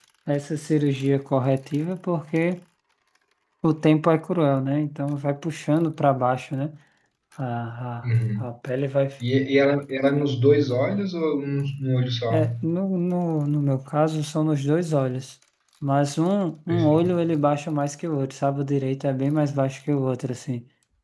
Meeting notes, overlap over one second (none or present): none